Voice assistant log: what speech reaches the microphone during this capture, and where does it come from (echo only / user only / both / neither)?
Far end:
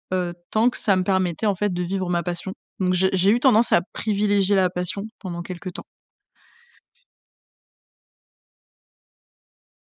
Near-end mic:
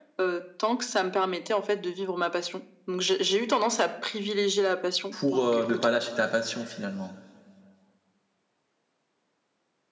both